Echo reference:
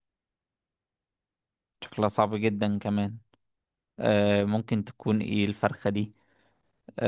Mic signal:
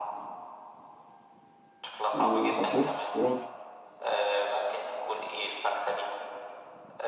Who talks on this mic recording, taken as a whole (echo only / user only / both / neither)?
both